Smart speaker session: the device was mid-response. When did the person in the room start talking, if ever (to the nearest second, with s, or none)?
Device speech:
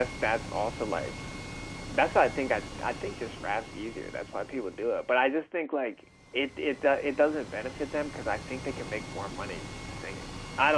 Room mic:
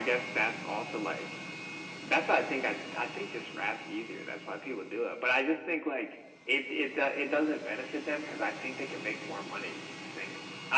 none